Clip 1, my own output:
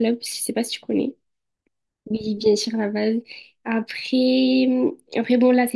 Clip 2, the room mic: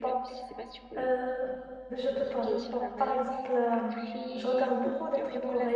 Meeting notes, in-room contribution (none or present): present